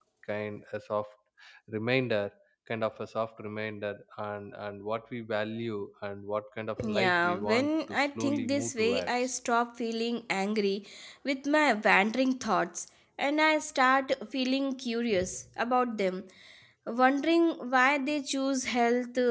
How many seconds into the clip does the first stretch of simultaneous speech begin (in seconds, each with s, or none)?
6.8 s